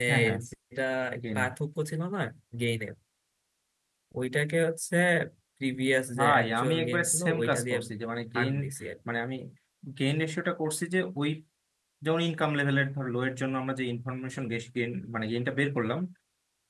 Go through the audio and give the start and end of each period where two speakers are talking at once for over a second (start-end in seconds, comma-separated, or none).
6.2-7.8